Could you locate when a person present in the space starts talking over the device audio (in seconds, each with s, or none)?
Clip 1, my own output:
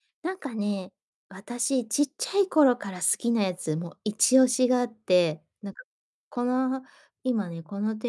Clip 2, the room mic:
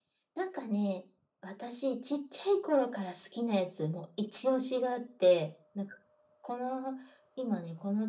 none